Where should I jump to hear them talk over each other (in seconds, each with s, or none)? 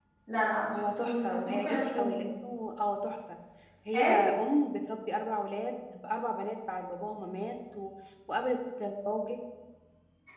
0.7 s